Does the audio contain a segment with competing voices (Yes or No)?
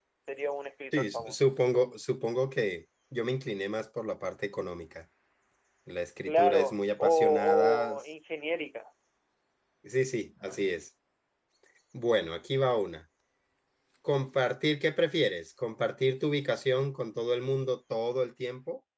Yes